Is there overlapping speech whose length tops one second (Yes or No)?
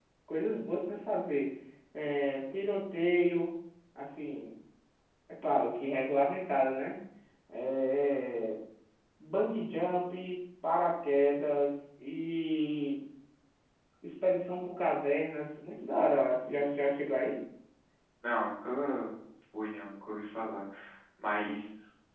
No